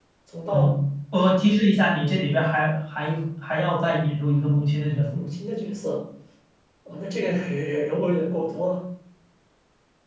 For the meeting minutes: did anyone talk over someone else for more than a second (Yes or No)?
No